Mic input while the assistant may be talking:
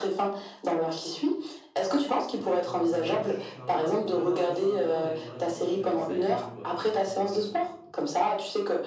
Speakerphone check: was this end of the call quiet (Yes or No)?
No